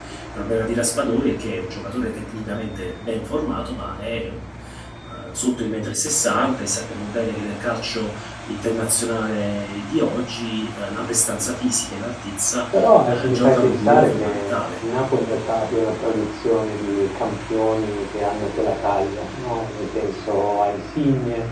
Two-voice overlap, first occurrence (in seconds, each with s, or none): 12.7 s